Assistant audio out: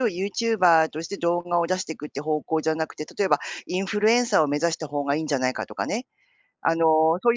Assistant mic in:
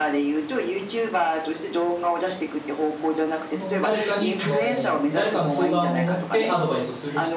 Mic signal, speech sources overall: both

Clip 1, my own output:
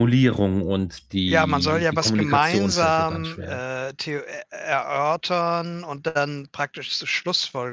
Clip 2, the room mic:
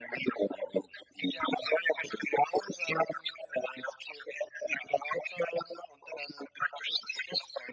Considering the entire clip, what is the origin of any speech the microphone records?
echo only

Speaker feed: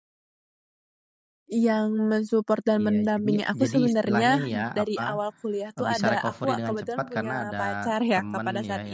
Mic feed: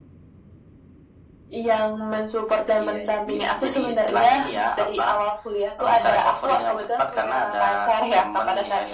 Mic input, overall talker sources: echo only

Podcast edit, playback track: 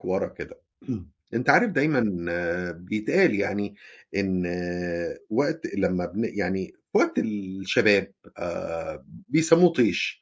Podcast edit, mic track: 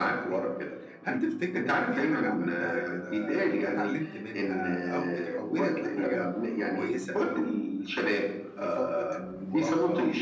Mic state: both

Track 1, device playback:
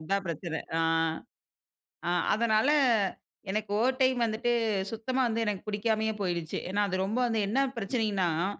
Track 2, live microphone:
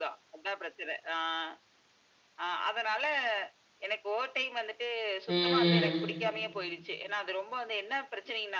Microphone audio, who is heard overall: both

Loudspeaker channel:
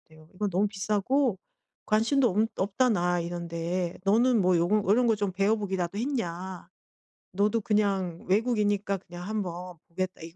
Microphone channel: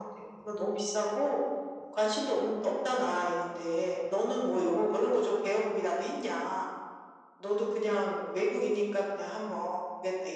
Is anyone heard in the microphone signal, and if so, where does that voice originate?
echo only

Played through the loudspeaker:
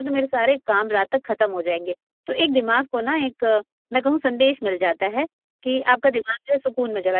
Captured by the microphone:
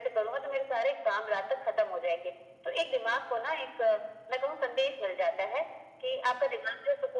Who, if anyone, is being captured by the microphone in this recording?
echo only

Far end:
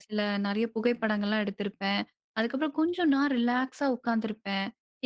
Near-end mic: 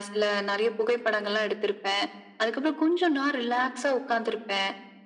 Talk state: echo only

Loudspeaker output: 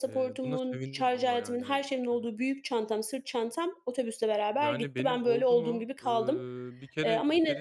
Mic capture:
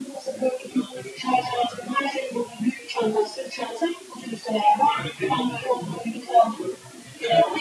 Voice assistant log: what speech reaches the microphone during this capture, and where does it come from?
echo only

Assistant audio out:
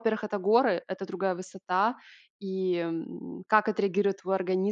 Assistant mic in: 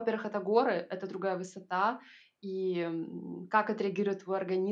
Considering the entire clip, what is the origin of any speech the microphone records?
echo only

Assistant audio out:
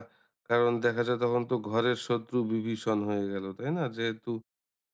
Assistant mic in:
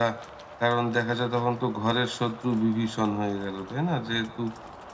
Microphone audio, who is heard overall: echo only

